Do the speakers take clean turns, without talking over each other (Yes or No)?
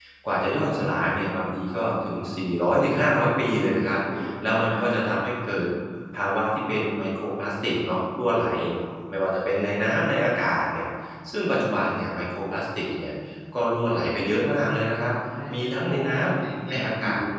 No